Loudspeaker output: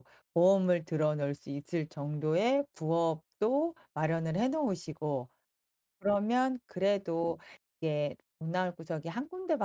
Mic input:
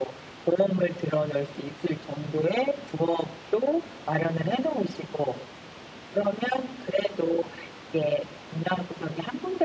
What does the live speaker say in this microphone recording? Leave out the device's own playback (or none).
none